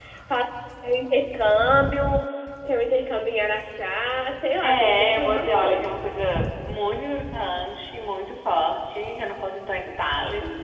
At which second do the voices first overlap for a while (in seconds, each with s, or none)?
4.6 s